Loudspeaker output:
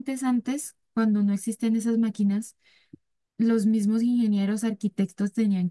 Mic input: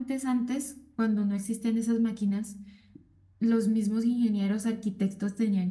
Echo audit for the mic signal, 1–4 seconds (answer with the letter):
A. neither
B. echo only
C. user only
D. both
B